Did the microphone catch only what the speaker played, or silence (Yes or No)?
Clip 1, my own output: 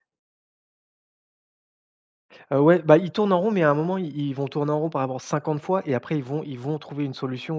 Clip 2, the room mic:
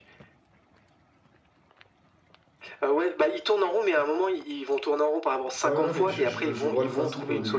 No